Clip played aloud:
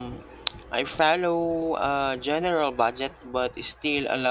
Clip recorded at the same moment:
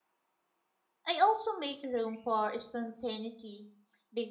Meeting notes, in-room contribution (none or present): present